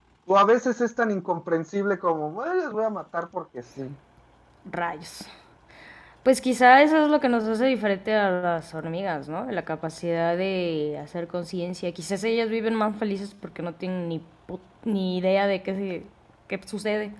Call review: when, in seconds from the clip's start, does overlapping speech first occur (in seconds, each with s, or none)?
none